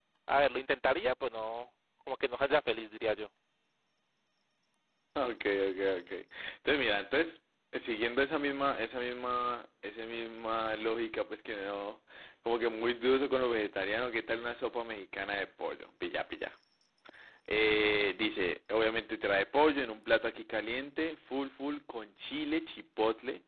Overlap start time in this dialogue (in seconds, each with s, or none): none